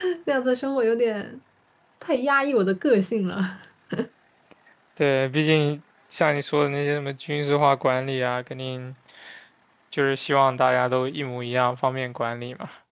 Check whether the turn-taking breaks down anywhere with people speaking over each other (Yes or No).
No